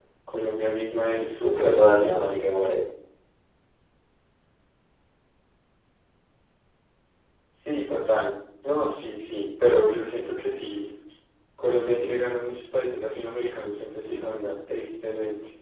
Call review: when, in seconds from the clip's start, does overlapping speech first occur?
1.0 s

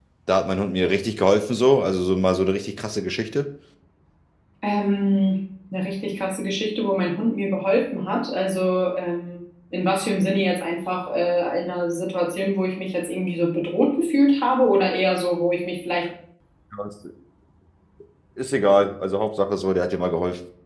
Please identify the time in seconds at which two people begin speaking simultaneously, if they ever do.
none

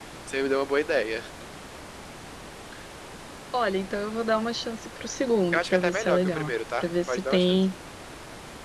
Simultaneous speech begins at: 5.5 s

